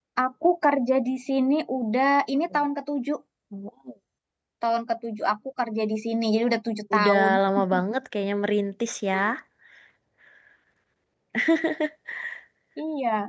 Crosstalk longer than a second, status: none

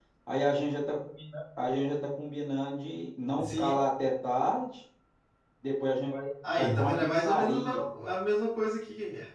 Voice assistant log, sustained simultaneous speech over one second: present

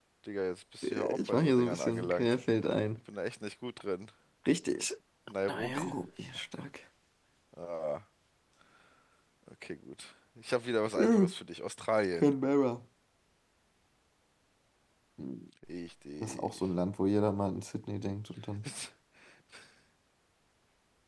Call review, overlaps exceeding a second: present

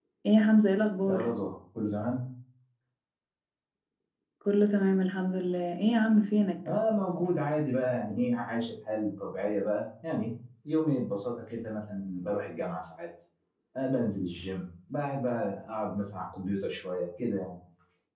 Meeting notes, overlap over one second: none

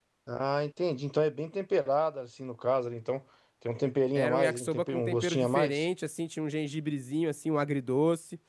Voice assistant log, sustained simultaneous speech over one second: present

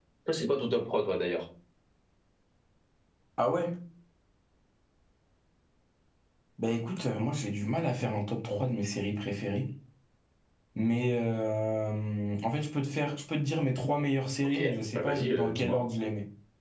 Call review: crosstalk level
present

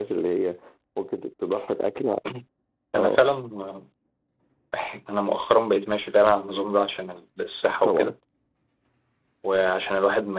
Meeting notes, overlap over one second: none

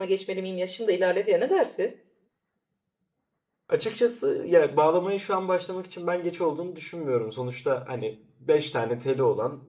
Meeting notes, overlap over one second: none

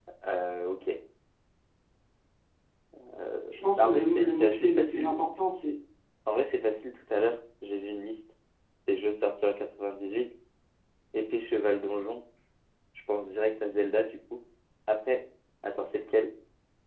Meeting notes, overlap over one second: present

